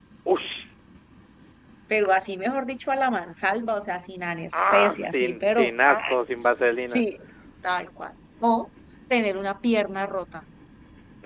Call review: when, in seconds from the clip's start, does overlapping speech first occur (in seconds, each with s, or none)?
4.5 s